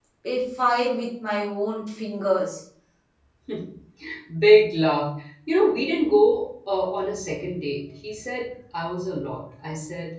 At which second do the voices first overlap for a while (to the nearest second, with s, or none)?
none